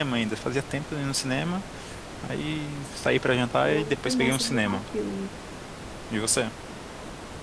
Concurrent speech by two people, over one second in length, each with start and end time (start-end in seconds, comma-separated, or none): 3.6-4.8